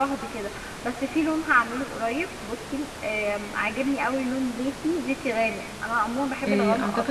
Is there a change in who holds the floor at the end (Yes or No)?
Yes